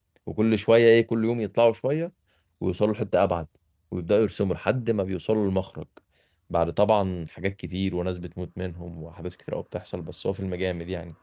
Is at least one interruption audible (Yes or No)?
No